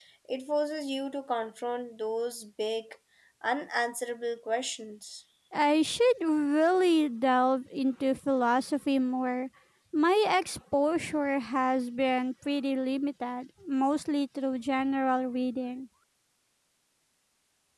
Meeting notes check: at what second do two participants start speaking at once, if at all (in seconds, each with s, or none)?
none